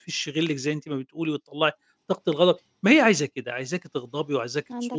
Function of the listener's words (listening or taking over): listening